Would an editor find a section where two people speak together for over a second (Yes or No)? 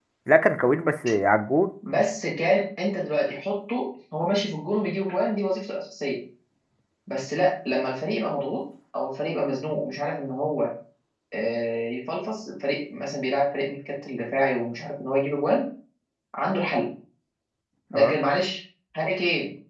No